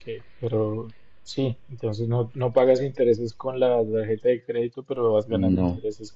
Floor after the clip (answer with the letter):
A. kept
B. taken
A